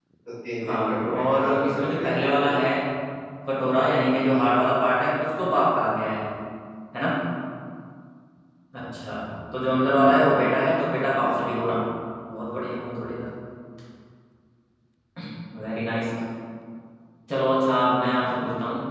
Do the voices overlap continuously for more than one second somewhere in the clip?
Yes, from 0.6 s

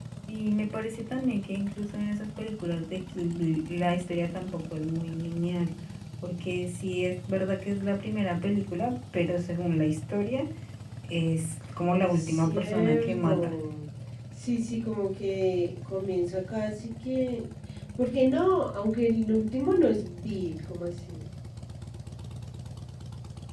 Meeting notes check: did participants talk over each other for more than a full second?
Yes, from 12.0 s

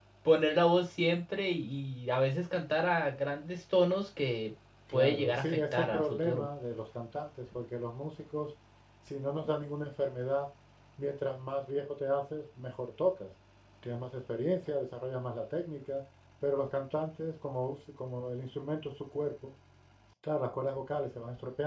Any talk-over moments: Yes, from 4.9 s

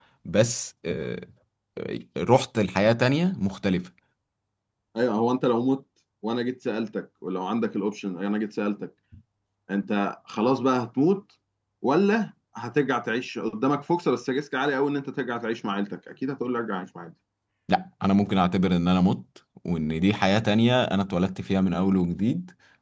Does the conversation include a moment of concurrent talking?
No

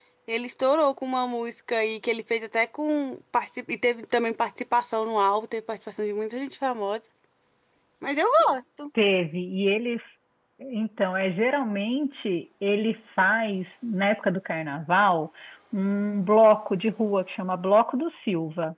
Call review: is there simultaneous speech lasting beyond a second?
No

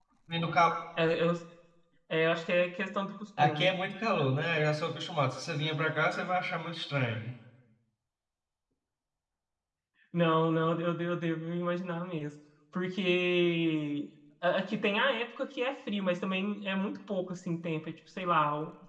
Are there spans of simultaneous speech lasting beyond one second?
No

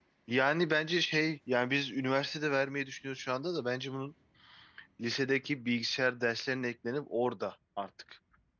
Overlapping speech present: No

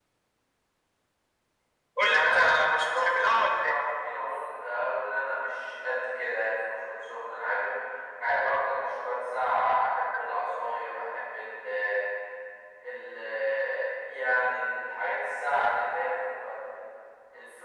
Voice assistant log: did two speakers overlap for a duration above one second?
Yes, from 2.0 s

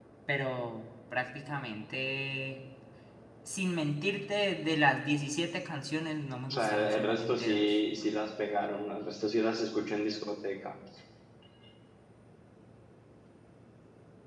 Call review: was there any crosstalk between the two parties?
Yes, from 6.5 s

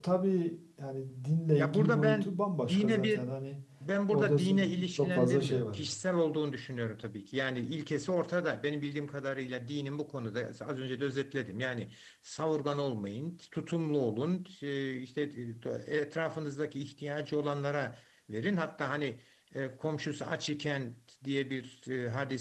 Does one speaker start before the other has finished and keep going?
Yes, from 1.6 s

